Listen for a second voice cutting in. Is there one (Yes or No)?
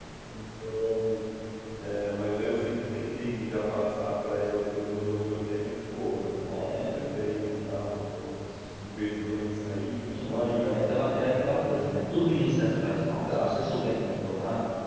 Yes